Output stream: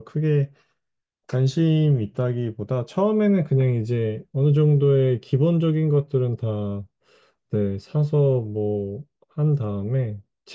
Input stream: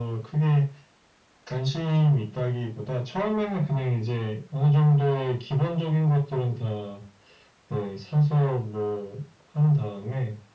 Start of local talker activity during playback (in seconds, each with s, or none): none